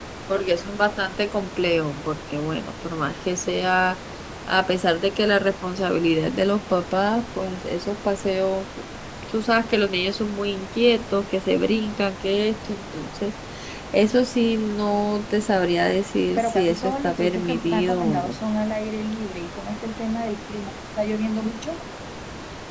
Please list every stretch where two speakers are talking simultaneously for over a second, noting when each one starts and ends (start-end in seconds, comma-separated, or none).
16.4-18.4